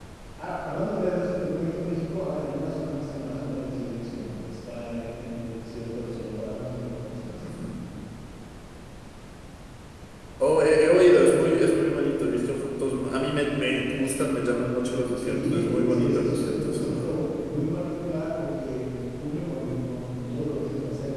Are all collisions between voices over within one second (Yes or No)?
No